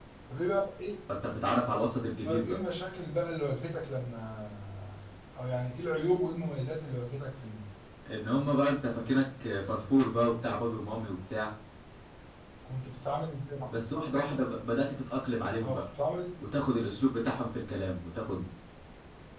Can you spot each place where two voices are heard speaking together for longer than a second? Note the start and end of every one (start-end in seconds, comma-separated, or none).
none